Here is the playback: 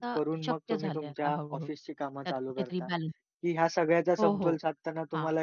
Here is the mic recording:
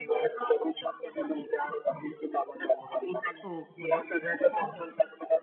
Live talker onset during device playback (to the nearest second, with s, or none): 3 s